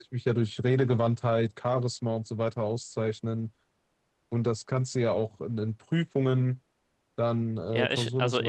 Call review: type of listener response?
taking over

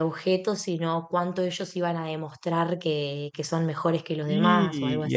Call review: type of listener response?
taking over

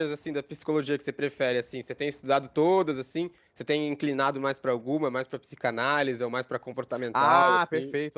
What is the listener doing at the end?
taking over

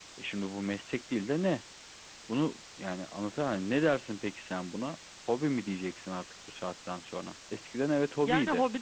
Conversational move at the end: taking over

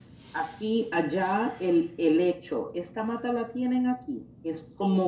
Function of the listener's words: listening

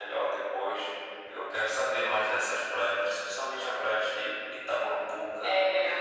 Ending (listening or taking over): taking over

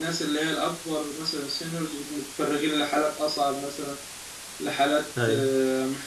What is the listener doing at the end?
listening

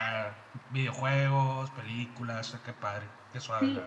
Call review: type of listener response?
taking over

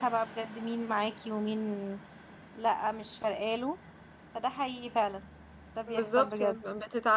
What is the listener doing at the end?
taking over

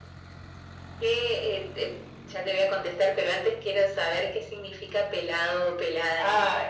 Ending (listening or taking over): taking over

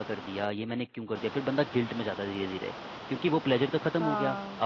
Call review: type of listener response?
listening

